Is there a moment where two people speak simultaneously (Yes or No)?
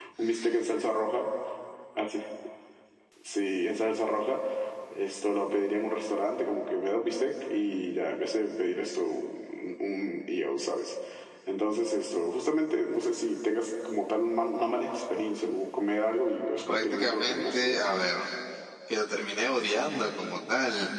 Yes